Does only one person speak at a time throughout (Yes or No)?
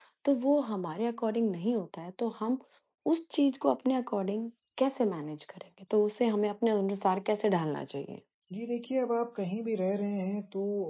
Yes